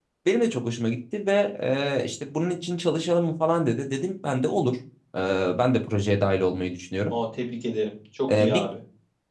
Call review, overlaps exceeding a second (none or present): none